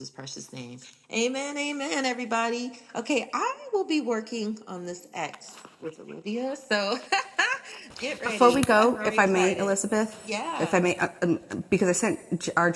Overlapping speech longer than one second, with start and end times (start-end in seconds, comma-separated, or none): 8.2-9.8